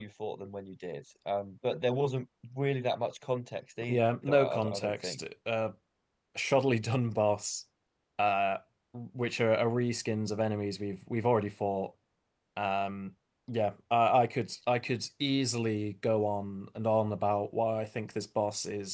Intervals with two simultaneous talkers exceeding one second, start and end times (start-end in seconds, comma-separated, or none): 3.9-5.2